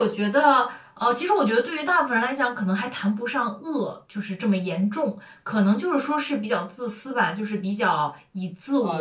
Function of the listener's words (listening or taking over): taking over